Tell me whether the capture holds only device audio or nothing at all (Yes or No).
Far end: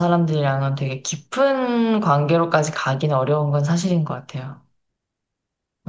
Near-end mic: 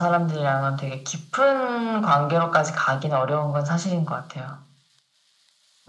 Yes